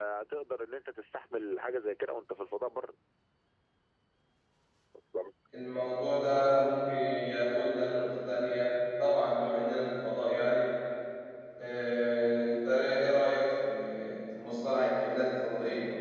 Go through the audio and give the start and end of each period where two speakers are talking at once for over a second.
none

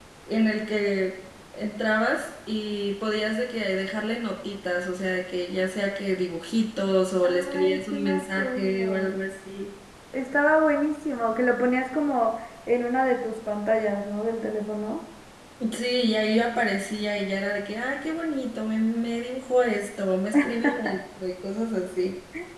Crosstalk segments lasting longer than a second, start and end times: 7.2-9.2

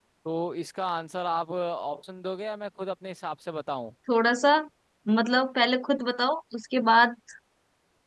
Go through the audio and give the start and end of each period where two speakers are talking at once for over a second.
none

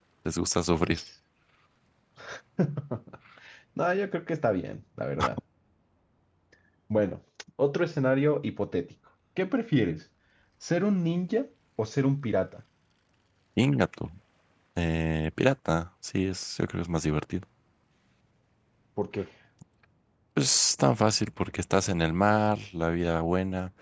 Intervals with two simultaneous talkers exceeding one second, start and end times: none

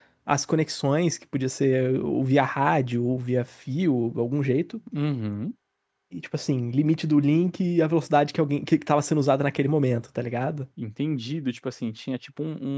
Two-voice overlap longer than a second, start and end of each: none

